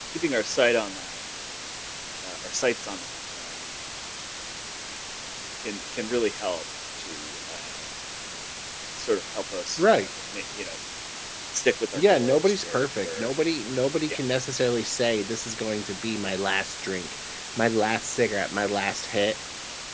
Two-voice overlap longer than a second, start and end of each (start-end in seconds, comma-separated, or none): 11.9-13.3